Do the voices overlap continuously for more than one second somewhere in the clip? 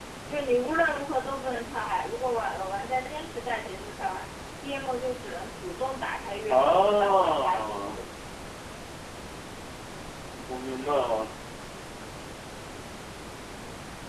Yes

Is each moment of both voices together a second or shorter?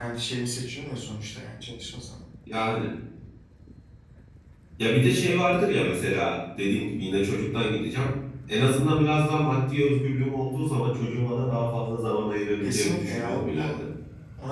No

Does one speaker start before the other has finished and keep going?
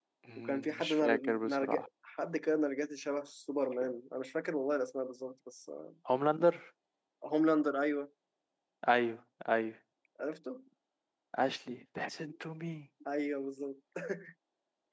Yes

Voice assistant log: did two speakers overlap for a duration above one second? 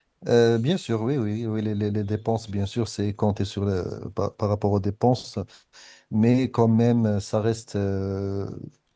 No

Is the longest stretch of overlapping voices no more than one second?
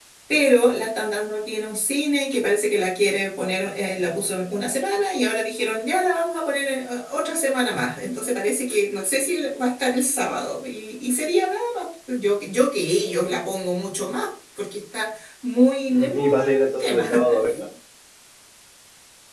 No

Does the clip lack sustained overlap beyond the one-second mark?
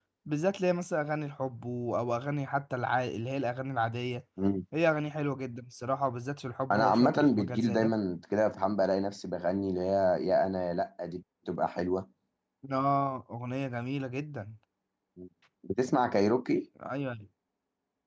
No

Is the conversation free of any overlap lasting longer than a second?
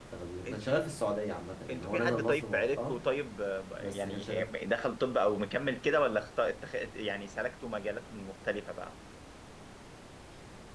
No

